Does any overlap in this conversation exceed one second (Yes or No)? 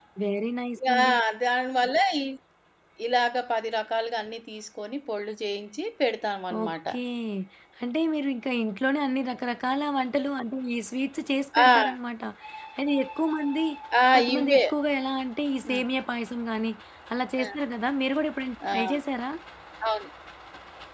No